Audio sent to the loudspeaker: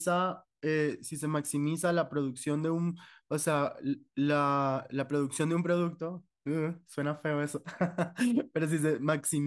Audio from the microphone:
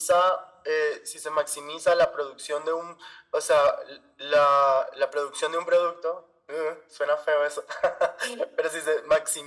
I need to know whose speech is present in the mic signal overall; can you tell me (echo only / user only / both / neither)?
echo only